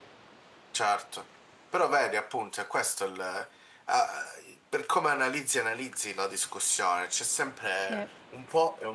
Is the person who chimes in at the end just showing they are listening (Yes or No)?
Yes